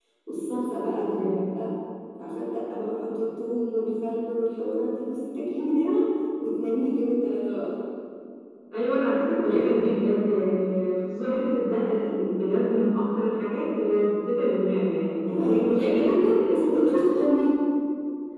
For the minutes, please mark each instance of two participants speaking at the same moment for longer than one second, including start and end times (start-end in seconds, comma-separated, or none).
15.3-16.6